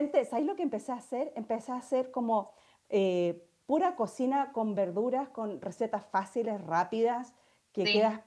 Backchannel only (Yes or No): Yes